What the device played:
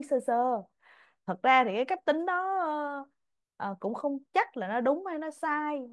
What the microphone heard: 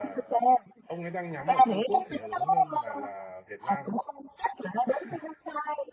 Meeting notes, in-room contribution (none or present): present